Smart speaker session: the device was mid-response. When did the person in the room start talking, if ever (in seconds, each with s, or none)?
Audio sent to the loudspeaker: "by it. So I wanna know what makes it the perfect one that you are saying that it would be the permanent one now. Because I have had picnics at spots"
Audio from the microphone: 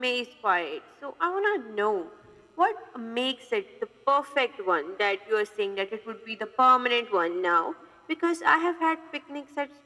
none